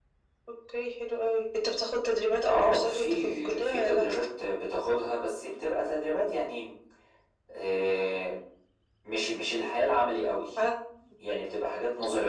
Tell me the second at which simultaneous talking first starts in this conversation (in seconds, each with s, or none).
2.5 s